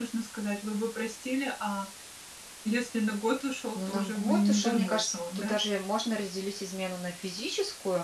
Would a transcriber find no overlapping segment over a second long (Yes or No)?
No